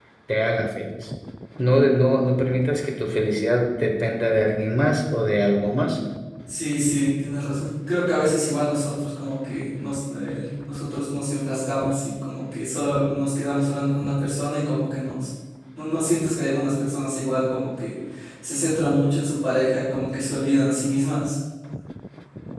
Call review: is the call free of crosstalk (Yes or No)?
Yes